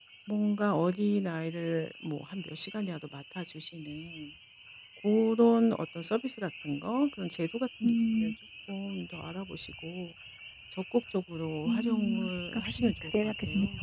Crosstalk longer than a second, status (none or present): present